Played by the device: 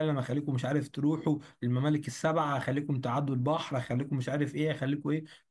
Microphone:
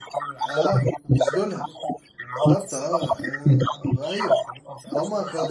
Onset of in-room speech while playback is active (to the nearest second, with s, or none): 0 s